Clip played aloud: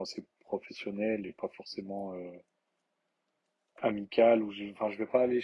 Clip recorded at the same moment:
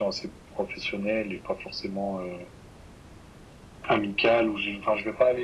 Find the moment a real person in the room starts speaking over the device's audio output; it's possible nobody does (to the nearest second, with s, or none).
none